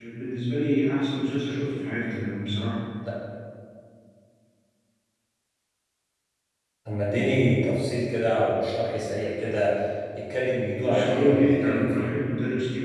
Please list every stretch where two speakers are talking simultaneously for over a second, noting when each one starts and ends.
10.8-12.1

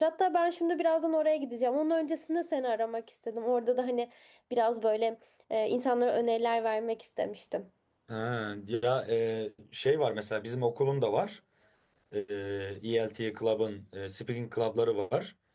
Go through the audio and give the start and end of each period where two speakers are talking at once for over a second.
none

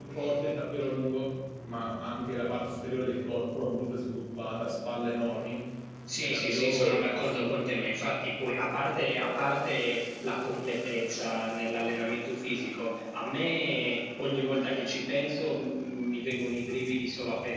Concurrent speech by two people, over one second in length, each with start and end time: 6.2-7.6

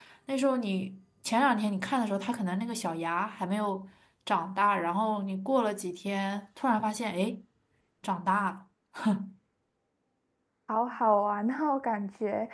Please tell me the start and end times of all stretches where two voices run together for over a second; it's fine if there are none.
none

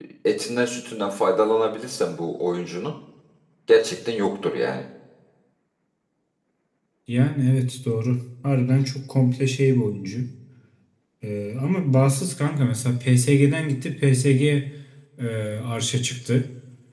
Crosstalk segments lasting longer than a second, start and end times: none

